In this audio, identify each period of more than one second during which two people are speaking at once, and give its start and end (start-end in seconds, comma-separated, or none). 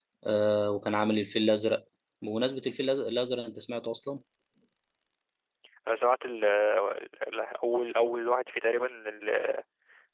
none